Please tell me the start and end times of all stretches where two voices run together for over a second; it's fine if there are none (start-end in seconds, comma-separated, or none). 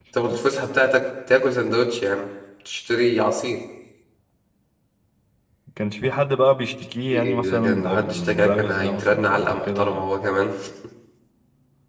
7.1-10.0